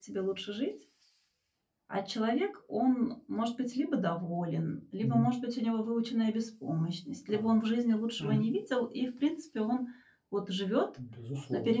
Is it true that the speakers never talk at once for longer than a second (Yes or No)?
Yes